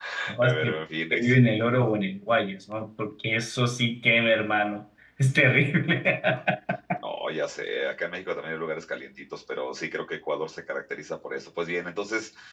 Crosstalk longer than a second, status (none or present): none